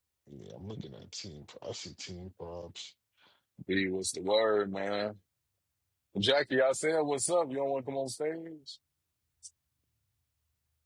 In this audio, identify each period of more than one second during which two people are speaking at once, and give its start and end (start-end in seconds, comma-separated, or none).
none